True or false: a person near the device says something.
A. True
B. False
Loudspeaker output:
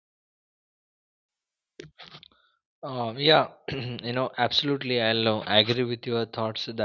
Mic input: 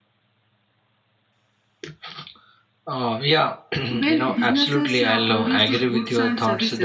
A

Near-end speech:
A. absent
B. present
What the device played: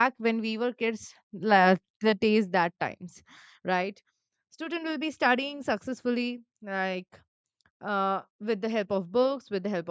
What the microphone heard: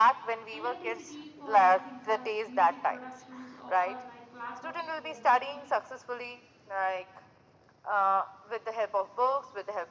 B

